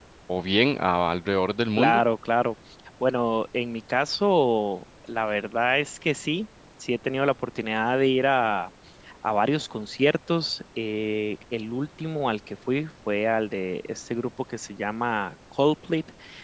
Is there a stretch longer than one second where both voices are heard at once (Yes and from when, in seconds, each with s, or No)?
No